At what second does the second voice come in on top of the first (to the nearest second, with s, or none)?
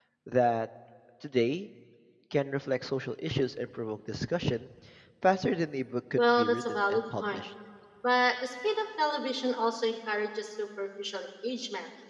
6 s